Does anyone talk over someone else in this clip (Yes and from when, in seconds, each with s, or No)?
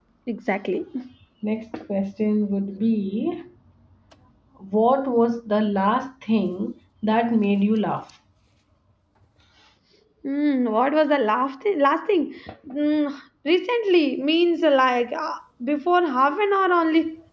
No